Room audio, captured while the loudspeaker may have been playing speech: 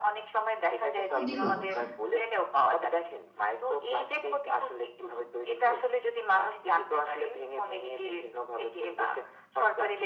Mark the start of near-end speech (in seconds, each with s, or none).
1.0 s